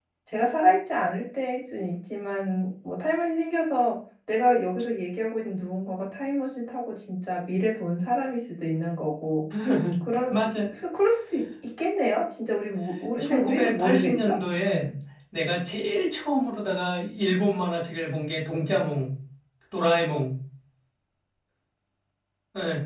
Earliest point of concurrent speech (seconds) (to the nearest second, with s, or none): 13 s